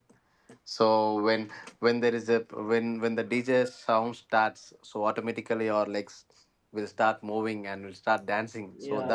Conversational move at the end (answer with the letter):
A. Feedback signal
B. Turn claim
B